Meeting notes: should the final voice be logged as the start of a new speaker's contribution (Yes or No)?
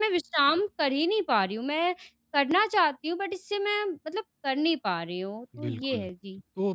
Yes